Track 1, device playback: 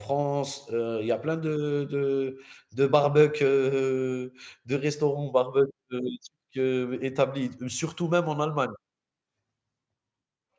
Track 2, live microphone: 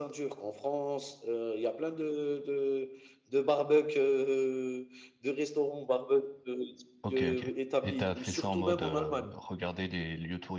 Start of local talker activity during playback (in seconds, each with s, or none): 7.0 s